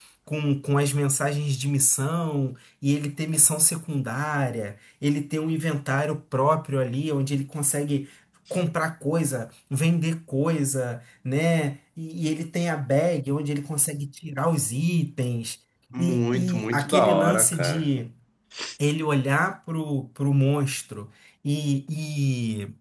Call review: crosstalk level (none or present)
present